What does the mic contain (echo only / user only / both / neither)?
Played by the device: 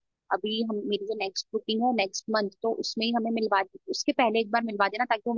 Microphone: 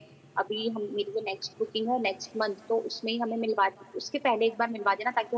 echo only